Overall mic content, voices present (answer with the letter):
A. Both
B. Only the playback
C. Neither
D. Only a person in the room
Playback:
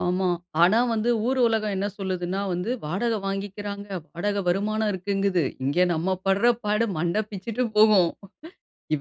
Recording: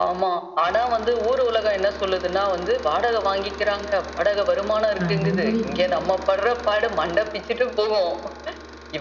A